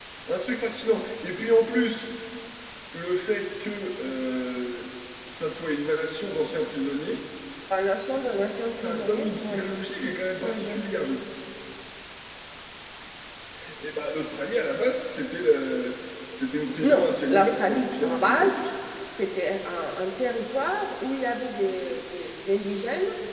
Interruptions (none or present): present